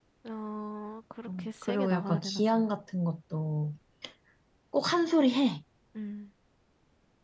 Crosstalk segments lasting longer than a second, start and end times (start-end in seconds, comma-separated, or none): 1.4-2.7